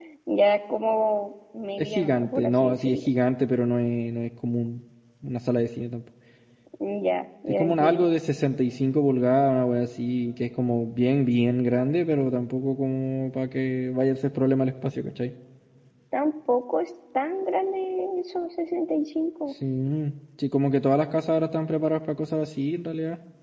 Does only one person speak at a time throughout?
No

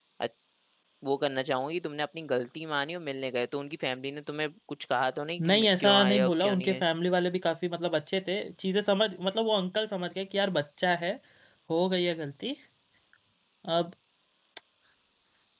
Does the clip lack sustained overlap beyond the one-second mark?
No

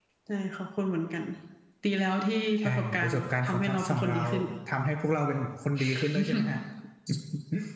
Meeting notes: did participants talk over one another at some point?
Yes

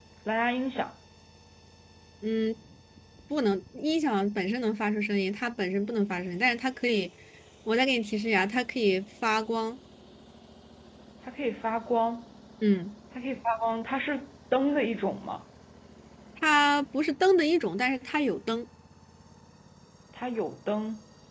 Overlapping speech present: No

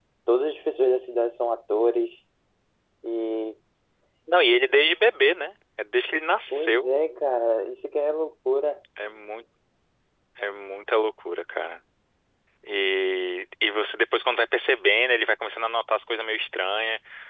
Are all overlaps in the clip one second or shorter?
Yes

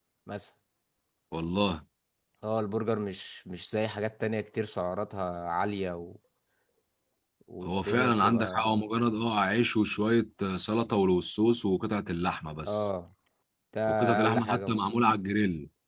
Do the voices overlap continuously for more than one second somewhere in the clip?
Yes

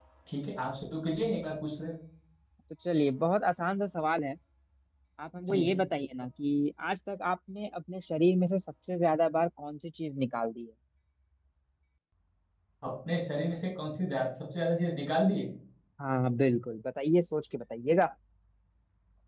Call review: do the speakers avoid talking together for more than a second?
Yes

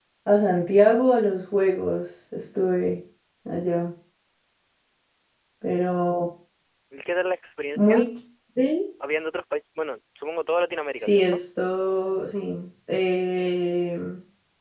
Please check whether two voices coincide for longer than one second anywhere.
No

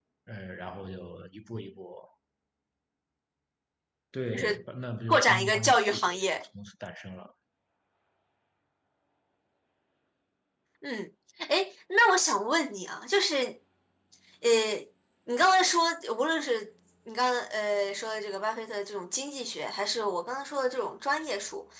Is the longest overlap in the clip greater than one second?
Yes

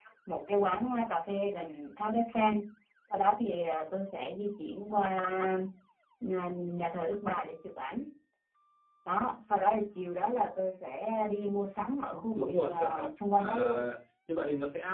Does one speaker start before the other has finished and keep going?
Yes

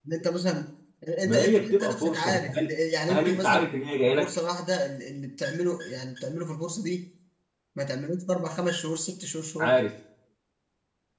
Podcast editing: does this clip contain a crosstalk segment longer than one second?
Yes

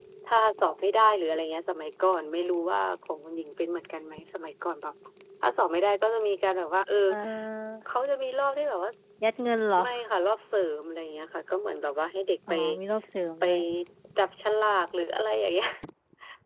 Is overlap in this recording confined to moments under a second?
Yes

